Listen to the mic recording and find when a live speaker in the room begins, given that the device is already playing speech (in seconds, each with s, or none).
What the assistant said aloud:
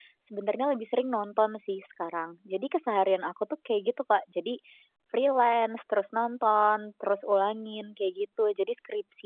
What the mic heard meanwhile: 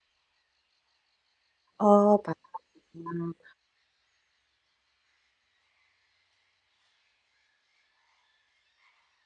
1.8 s